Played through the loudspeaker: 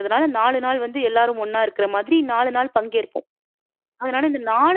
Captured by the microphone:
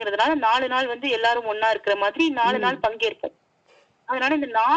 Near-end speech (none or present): present